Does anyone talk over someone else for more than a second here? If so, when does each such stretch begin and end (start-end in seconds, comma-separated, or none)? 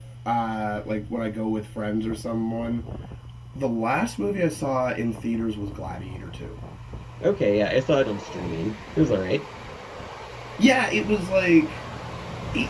none